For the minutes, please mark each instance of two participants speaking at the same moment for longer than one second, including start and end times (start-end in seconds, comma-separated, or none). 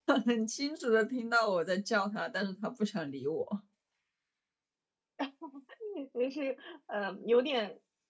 none